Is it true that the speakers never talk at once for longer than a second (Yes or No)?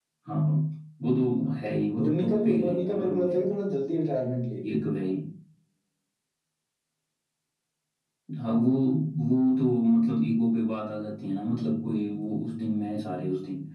No